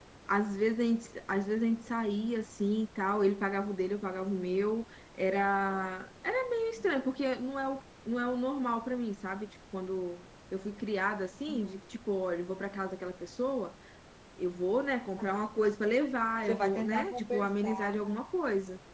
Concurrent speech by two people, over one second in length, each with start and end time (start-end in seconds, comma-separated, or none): 16.5-17.9